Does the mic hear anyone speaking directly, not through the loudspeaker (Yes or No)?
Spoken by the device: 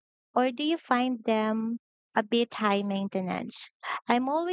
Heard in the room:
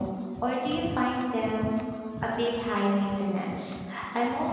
No